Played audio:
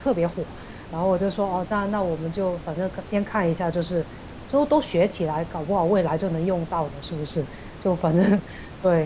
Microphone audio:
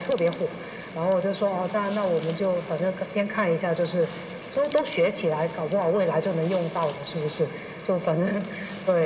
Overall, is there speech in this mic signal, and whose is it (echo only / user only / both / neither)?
echo only